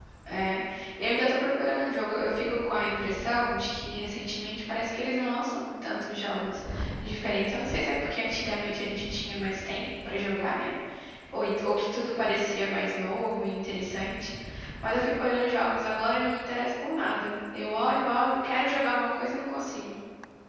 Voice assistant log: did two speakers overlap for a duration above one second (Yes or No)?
No